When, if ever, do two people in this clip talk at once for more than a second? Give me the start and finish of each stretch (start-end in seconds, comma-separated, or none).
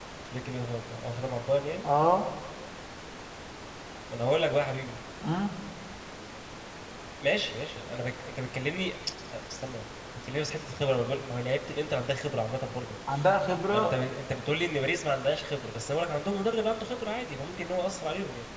none